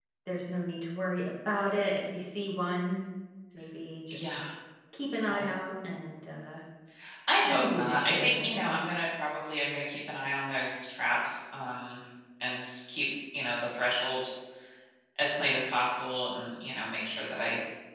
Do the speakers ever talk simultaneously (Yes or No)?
Yes